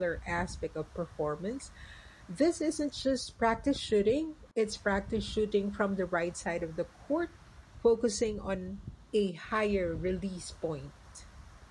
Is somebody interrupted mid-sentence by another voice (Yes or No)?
No